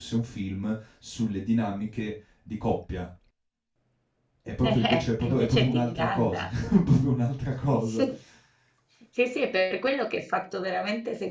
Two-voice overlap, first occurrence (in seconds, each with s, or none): 4.6 s